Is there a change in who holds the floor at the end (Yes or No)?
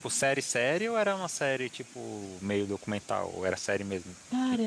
Yes